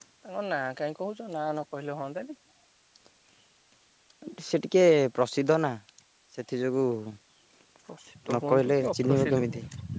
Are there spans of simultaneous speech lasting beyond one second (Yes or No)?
Yes